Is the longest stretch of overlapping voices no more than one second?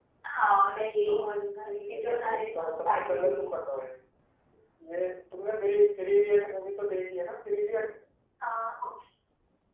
No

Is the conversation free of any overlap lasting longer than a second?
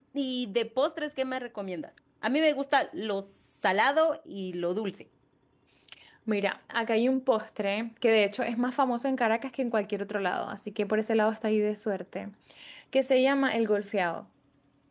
Yes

